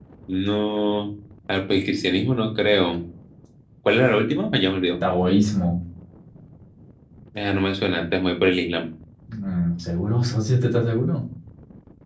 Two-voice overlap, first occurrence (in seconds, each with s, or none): none